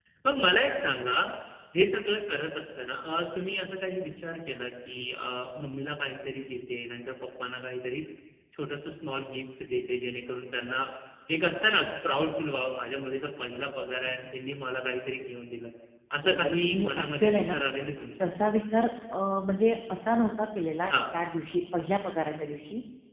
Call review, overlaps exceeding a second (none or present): present